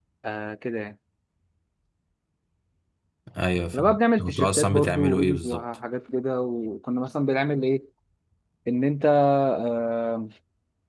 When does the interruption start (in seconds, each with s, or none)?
3.7 s